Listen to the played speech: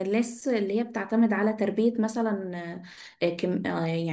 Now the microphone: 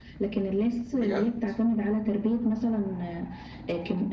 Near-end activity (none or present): present